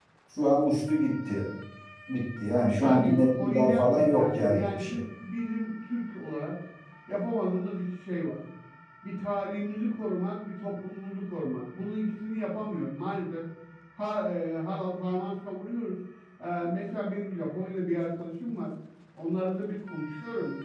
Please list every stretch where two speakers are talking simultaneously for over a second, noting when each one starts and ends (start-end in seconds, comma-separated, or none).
2.8-5.0